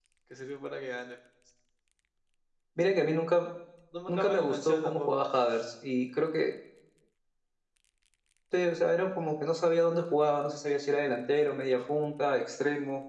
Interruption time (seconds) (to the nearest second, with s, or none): 4 s